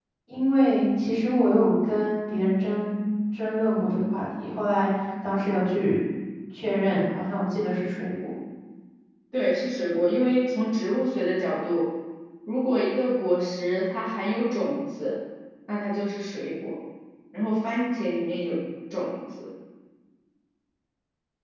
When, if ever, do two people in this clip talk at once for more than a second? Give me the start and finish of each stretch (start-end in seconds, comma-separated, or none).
none